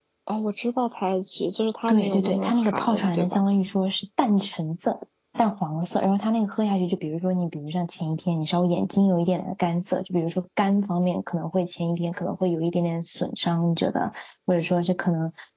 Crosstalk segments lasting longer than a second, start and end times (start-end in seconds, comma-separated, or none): 1.9-3.4